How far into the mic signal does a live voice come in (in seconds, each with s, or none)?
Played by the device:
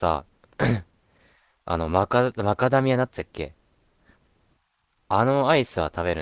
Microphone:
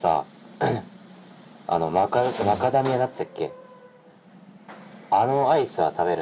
2.4 s